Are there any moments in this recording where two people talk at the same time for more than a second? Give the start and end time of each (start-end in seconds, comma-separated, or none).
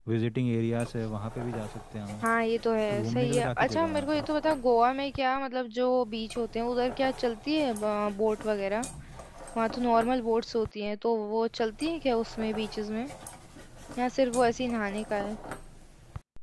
2.9-4.2